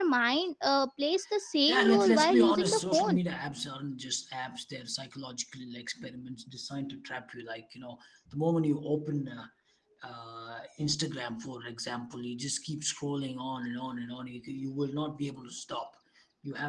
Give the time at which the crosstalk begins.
1.7 s

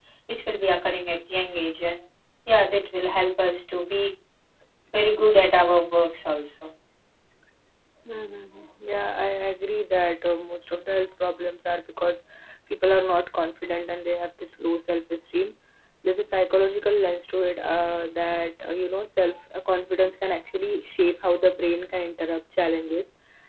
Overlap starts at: none

